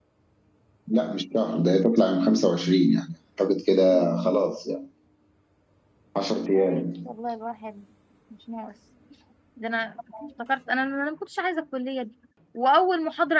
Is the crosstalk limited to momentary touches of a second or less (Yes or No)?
Yes